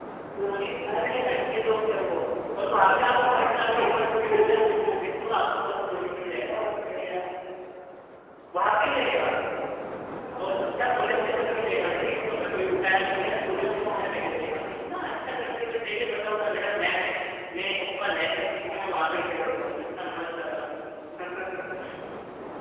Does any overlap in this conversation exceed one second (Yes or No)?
Yes